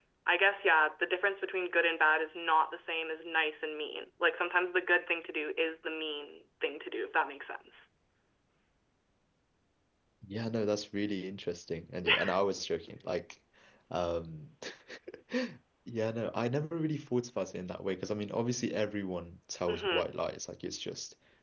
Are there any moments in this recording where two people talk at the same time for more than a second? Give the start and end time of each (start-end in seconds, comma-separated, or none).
none